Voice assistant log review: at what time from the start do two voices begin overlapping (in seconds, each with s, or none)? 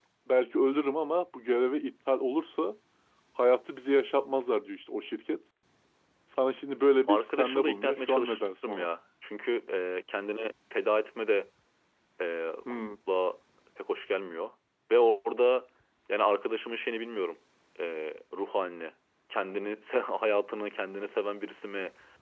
7.1 s